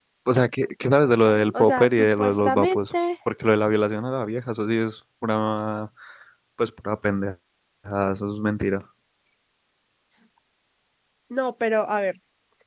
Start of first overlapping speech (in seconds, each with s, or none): 1.5 s